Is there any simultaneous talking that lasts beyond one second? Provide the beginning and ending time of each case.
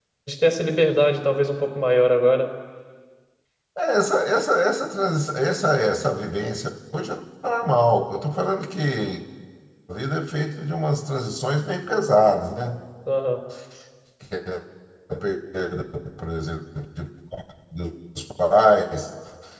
none

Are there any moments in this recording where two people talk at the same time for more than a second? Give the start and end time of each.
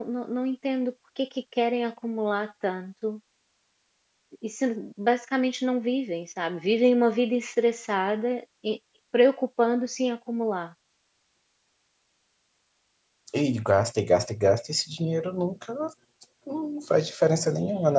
none

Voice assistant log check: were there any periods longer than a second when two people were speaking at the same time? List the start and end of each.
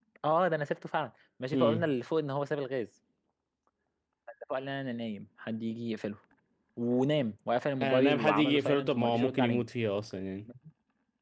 7.8-9.6

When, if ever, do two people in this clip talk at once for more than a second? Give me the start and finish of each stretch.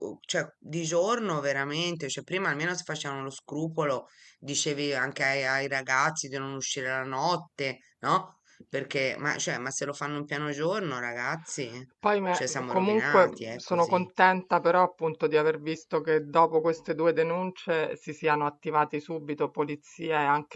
12.3-14.1

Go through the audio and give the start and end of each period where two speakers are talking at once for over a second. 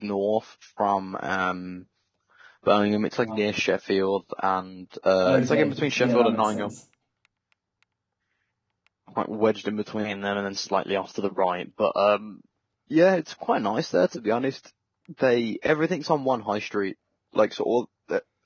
5.2-6.7

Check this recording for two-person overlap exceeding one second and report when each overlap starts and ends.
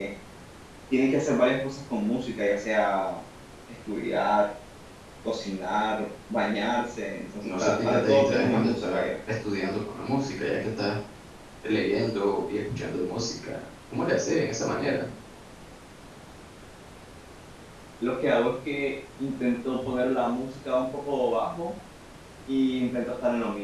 7.4-9.0

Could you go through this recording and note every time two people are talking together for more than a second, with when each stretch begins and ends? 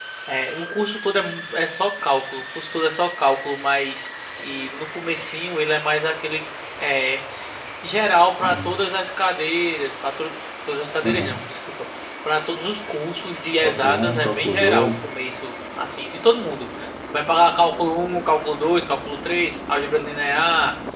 13.6-14.9

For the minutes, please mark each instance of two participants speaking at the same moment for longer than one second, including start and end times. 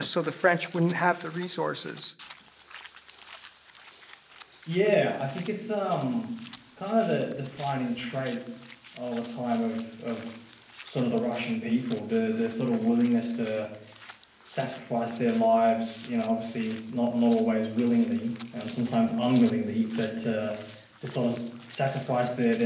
none

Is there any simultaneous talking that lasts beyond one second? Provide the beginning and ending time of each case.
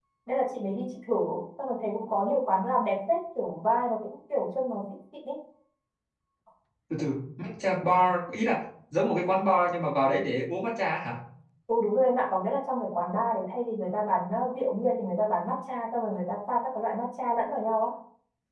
none

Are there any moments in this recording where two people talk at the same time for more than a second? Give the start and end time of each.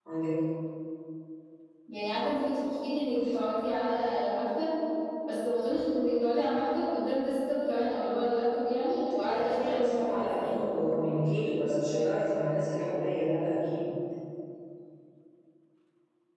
9.2-10.5

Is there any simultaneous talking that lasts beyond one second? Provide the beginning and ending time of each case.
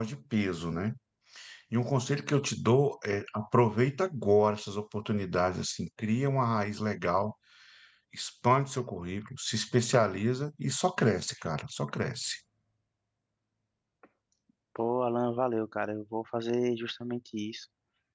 none

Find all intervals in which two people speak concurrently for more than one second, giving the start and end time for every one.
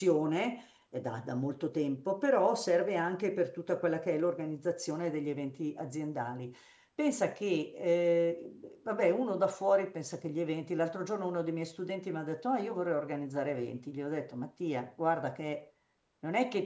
none

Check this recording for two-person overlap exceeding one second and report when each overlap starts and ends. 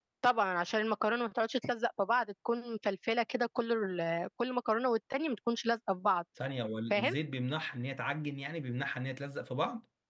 none

